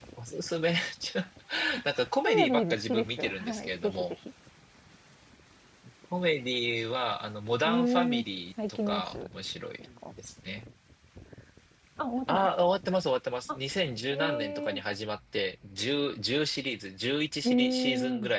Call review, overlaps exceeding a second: present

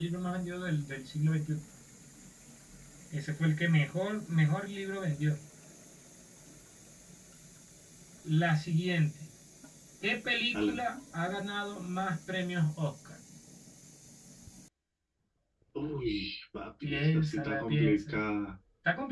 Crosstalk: present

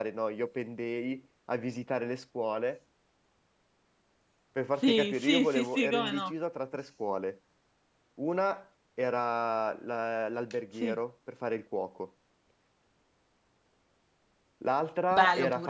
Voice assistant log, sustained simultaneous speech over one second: present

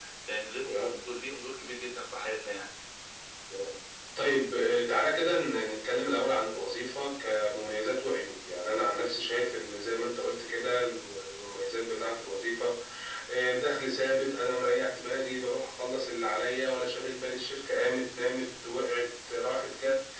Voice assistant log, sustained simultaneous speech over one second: none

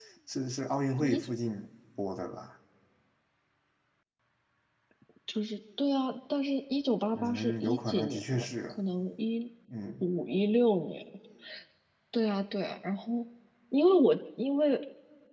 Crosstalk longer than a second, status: present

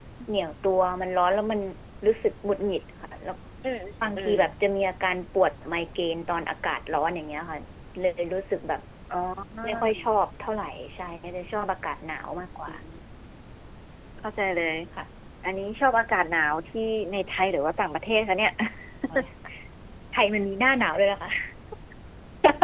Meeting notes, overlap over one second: none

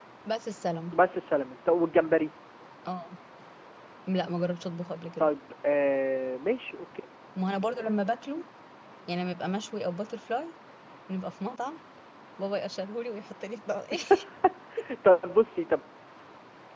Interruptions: none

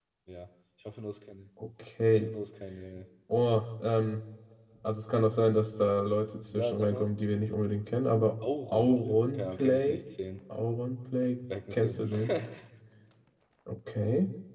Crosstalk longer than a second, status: present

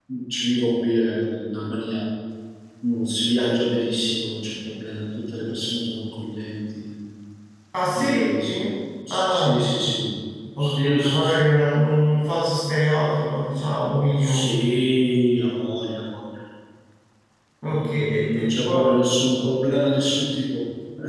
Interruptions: present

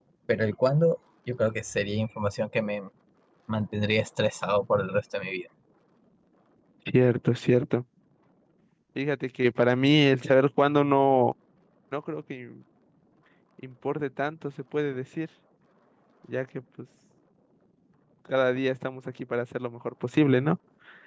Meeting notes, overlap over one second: none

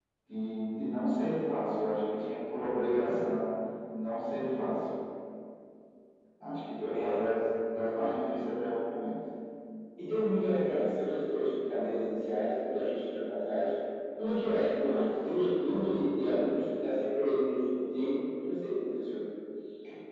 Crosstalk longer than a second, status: none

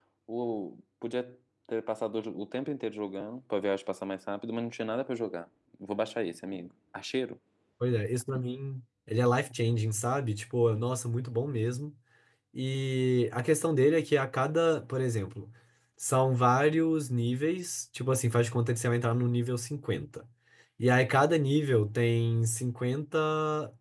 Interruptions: none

